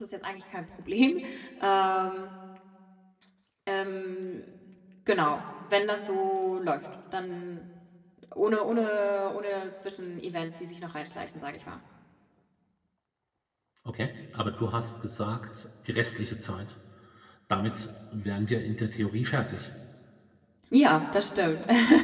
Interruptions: none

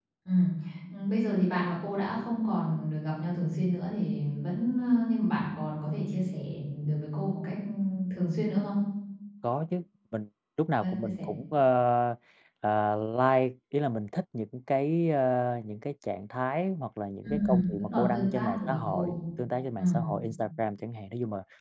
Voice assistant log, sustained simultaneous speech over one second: present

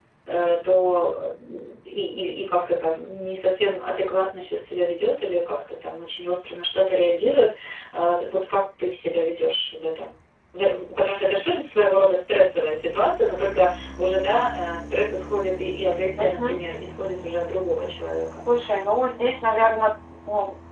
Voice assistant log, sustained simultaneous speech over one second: none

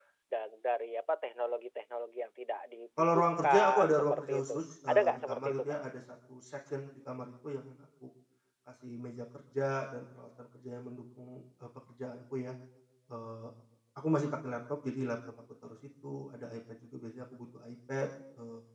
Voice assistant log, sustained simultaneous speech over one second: present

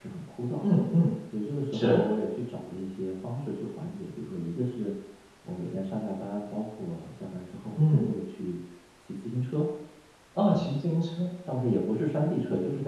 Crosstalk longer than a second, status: none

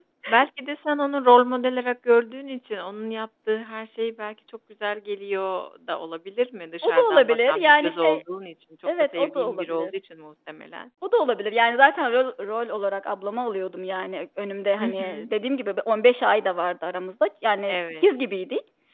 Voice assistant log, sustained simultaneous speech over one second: present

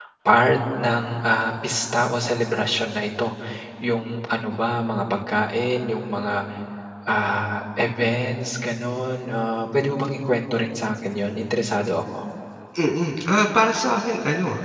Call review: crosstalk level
none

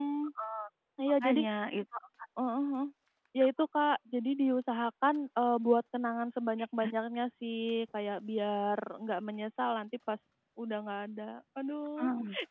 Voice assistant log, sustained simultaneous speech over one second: none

